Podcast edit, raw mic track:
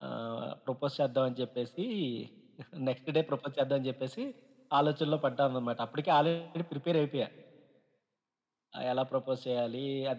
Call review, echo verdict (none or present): present